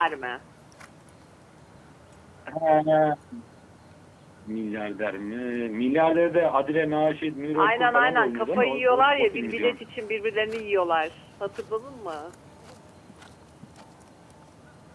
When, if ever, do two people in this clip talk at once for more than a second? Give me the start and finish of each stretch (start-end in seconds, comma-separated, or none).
7.6-9.8